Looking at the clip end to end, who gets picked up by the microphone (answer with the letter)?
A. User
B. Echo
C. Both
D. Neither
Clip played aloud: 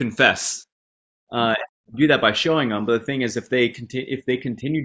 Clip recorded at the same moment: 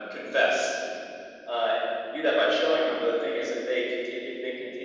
B